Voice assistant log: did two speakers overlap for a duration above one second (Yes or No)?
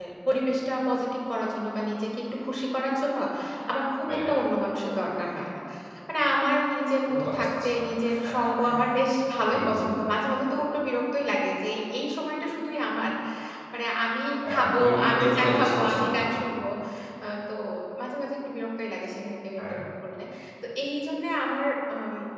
Yes